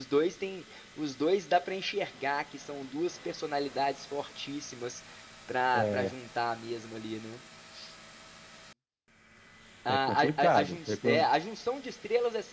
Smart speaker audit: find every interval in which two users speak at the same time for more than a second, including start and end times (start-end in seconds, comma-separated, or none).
9.9-11.3